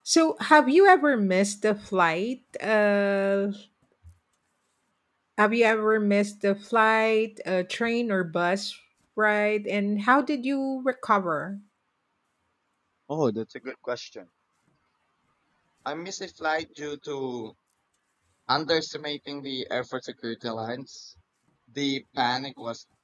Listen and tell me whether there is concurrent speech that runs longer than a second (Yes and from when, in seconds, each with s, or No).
No